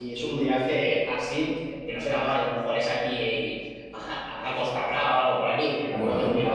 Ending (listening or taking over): listening